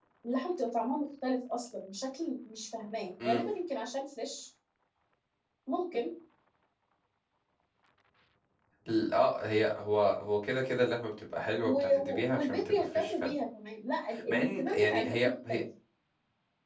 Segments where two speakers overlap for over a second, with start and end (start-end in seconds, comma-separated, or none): 11.6-13.3, 14.3-15.6